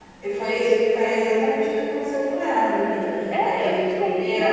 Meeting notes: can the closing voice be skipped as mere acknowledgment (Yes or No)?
No